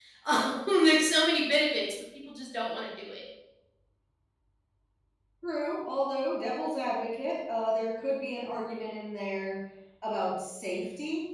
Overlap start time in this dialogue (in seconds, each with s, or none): none